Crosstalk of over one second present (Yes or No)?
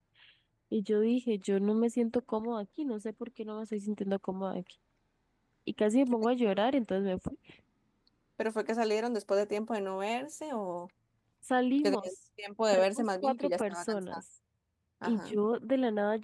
Yes